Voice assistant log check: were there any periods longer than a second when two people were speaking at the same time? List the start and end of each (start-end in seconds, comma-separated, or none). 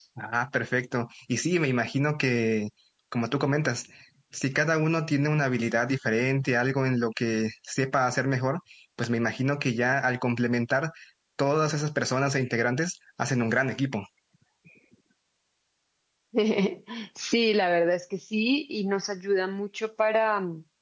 none